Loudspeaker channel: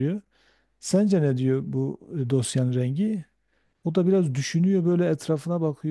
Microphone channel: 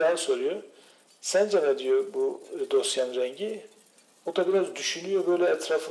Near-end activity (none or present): none